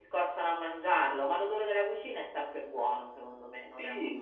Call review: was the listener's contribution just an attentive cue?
No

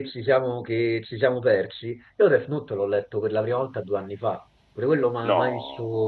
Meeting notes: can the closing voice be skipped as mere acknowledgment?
Yes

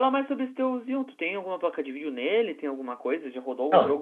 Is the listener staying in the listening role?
No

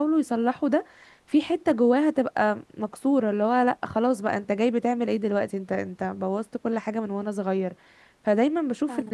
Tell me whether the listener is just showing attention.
Yes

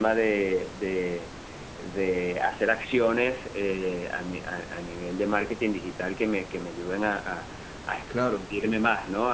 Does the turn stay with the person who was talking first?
Yes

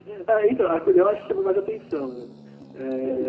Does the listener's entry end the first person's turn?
Yes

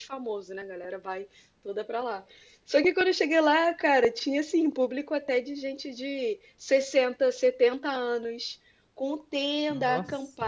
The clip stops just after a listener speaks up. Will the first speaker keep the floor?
Yes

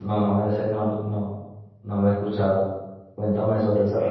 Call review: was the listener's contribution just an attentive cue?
No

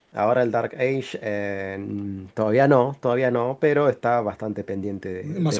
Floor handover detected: Yes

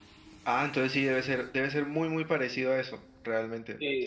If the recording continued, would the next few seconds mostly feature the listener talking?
Yes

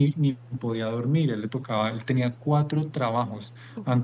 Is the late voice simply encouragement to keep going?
Yes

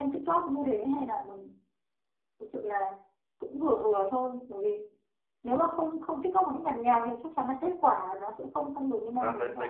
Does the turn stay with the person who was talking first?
No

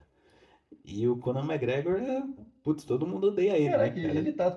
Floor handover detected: Yes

